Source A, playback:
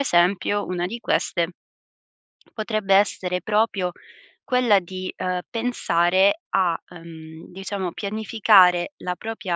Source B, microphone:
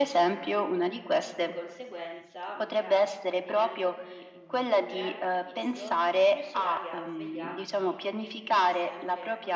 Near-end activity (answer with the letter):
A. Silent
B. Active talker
B